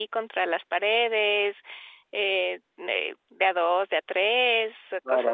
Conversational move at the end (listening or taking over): taking over